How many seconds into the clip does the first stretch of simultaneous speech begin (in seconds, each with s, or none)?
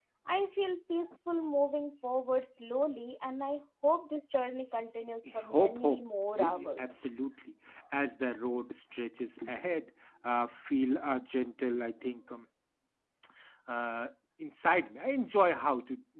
5.5 s